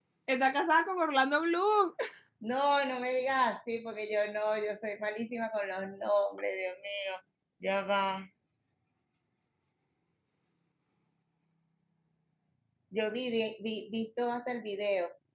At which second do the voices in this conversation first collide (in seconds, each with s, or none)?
none